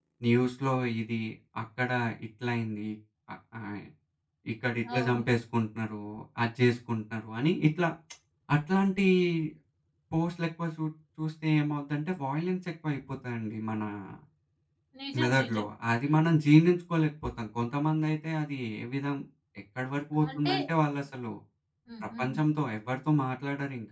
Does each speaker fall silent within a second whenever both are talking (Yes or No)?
Yes